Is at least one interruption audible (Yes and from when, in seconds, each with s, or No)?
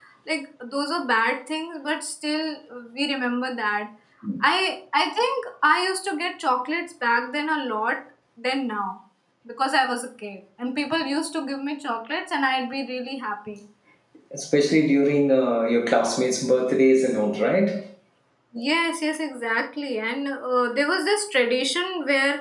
No